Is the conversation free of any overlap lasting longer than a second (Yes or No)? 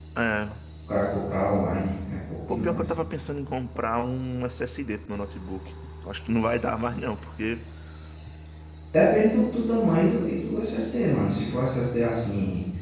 Yes